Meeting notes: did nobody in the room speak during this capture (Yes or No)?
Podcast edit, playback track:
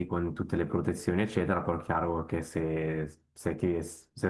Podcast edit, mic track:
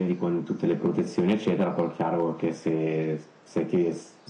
Yes